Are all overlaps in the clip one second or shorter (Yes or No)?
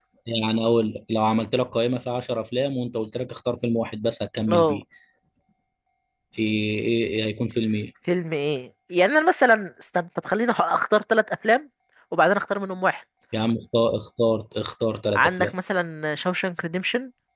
Yes